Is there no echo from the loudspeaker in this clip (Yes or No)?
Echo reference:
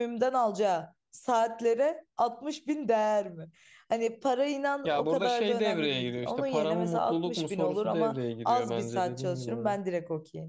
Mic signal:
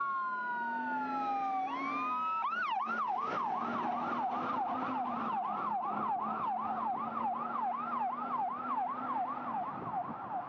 Yes